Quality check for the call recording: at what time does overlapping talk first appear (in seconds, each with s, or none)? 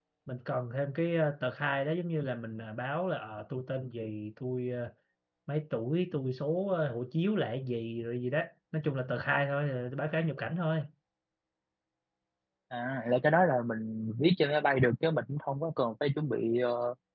none